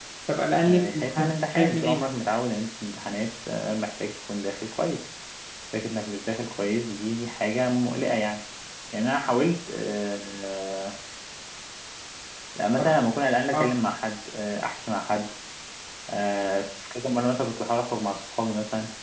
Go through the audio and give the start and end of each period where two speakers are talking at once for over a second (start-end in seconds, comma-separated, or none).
0.7-2.0